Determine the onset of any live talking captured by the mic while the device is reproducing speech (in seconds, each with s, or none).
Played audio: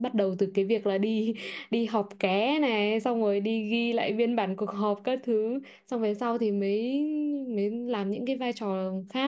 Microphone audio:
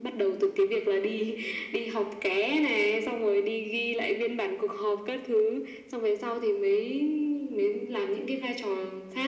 none